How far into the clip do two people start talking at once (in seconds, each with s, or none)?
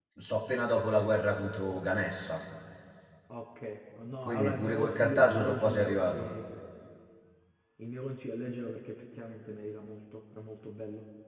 4.2 s